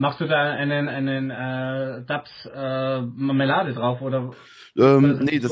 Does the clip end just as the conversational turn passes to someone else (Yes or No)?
Yes